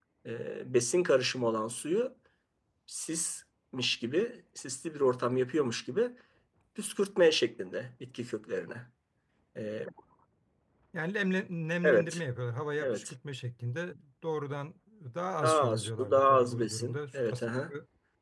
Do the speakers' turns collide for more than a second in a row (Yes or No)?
Yes